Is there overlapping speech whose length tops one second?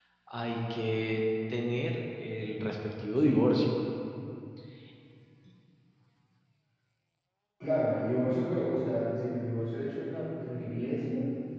No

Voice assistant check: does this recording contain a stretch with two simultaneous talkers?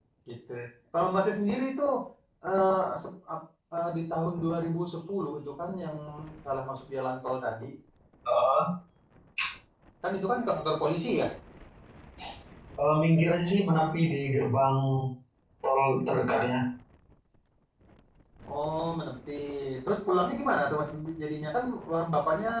No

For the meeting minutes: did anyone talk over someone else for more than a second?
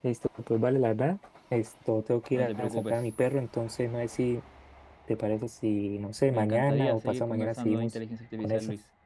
Yes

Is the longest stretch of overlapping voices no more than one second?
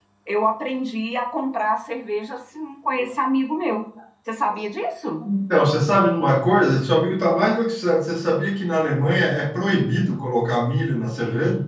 Yes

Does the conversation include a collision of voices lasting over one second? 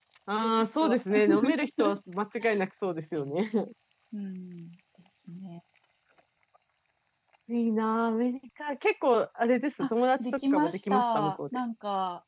Yes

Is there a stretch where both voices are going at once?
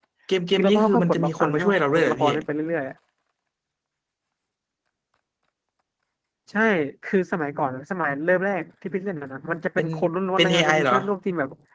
Yes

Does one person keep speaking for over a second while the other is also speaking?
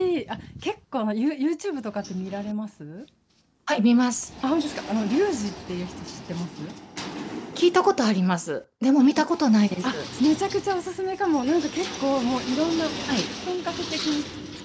No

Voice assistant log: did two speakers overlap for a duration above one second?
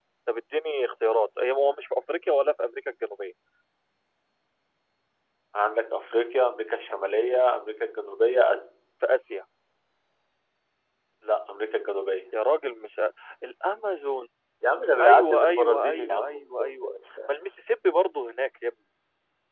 Yes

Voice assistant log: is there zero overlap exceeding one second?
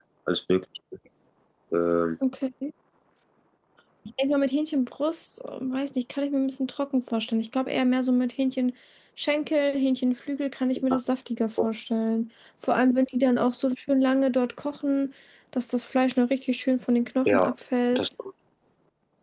Yes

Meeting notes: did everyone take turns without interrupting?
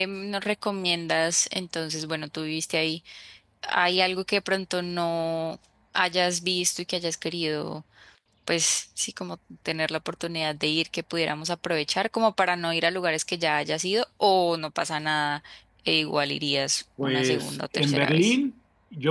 No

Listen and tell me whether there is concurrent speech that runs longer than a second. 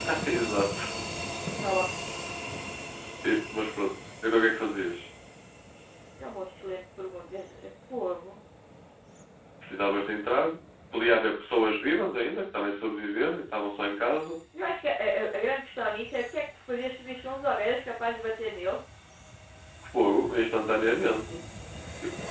No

